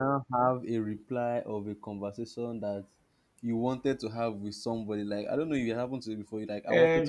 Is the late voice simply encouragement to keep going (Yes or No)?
No